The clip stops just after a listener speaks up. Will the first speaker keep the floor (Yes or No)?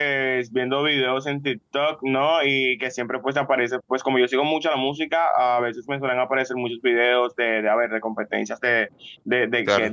Yes